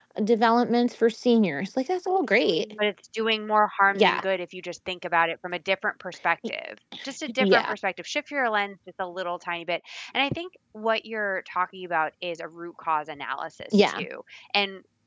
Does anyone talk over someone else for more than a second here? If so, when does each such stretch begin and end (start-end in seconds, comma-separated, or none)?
none